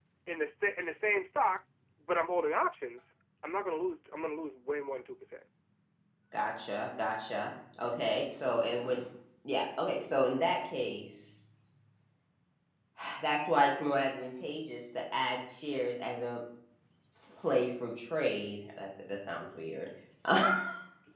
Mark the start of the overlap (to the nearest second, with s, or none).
none